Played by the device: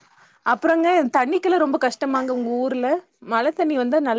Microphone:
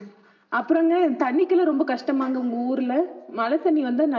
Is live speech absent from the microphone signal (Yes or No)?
Yes